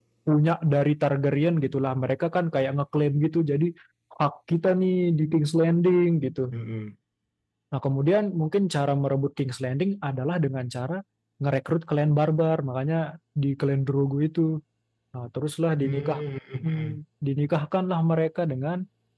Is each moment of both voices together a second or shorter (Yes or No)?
Yes